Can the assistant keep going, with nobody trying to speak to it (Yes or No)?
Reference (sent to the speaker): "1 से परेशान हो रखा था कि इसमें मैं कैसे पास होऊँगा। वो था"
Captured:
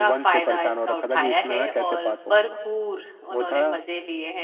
No